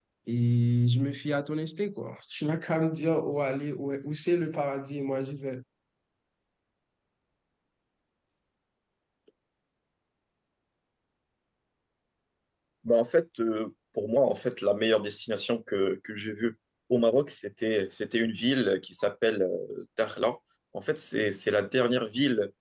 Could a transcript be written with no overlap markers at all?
Yes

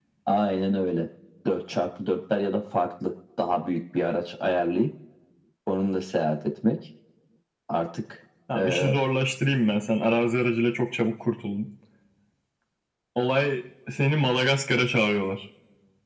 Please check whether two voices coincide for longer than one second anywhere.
No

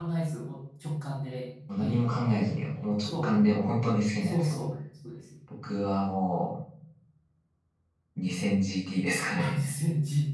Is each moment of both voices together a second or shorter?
Yes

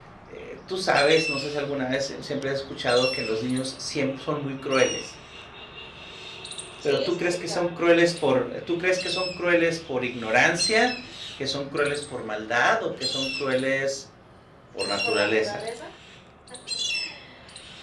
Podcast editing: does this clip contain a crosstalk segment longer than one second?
Yes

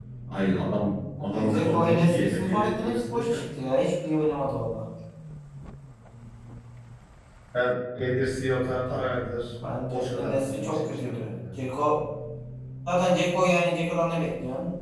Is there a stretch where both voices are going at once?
Yes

